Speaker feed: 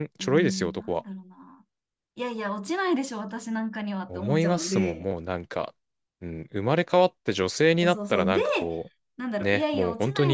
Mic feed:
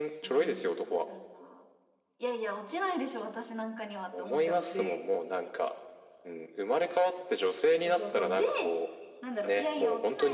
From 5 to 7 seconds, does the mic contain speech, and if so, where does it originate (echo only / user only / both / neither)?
echo only